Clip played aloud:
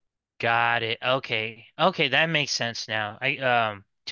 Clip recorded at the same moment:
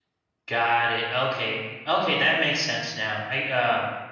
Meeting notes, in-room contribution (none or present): none